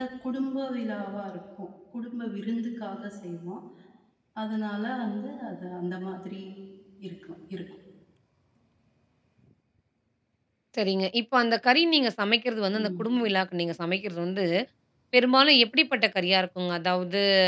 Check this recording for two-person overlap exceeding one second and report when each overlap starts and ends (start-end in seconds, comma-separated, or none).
none